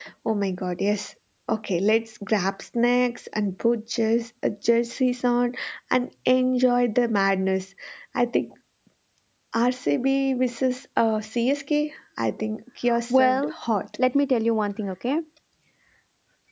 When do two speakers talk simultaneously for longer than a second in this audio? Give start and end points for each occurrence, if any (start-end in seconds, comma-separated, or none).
none